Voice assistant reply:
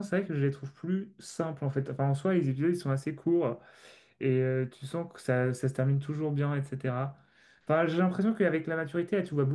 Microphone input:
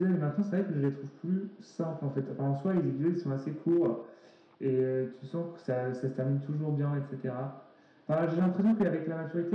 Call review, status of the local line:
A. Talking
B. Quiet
B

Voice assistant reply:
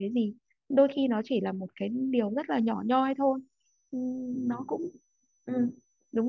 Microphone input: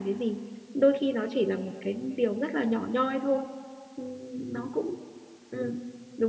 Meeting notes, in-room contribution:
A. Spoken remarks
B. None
B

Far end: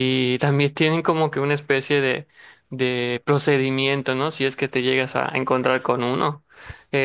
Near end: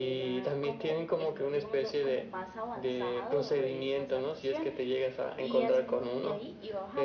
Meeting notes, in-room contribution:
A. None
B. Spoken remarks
B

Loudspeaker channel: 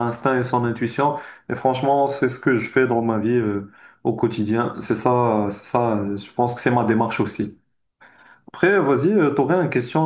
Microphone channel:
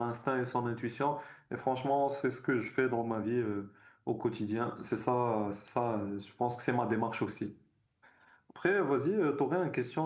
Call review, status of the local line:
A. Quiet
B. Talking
A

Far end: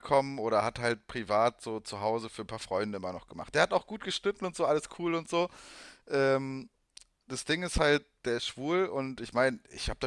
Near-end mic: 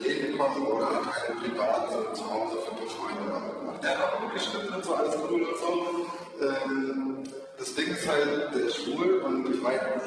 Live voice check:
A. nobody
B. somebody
A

